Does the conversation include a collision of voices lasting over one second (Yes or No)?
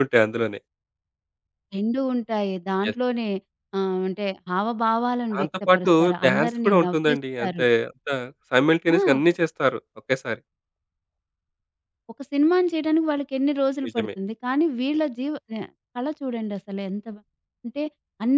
Yes